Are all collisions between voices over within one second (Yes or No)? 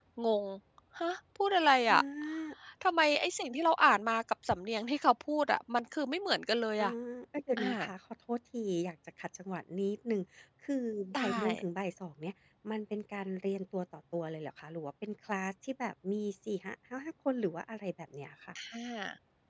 Yes